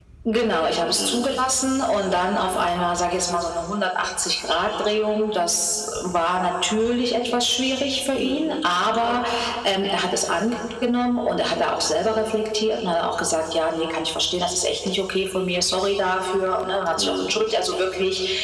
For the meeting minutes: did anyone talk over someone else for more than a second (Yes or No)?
No